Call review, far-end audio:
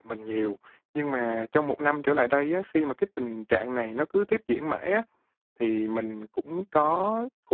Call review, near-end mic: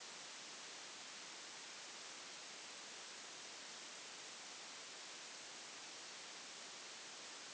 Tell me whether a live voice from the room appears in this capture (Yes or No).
No